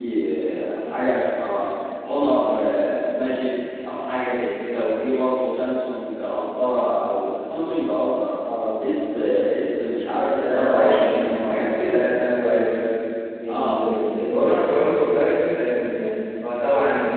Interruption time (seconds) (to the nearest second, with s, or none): 10 s